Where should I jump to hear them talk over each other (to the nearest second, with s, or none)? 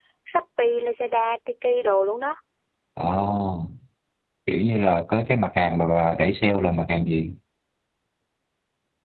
none